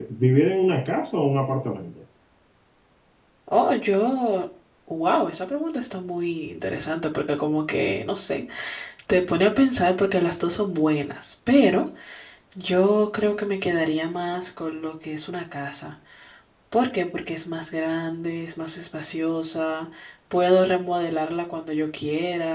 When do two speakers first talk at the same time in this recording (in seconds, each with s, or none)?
none